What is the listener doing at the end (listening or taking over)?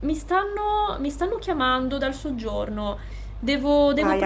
taking over